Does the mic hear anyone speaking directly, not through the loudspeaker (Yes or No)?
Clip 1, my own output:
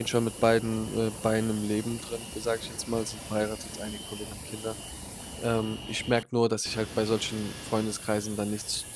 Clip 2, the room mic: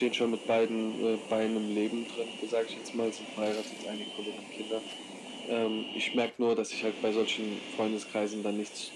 No